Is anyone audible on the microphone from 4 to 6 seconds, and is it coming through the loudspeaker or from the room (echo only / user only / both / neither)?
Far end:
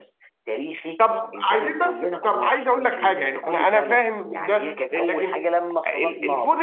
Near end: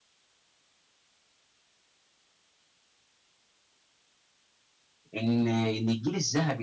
user only